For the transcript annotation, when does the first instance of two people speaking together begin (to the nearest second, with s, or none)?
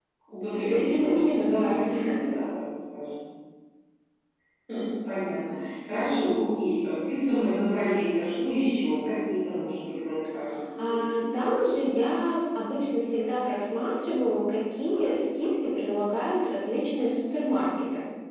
1 s